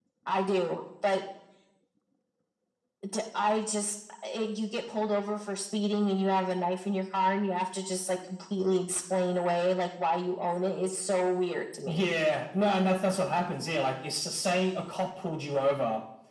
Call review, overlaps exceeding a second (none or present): none